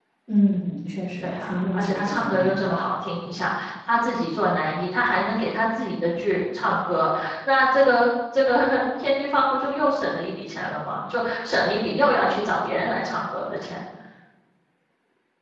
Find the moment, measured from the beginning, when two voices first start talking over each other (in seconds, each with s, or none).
1.2 s